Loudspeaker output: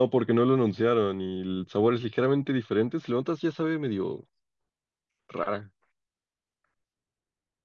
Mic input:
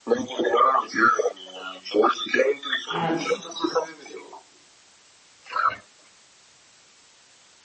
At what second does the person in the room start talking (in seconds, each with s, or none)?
2.9 s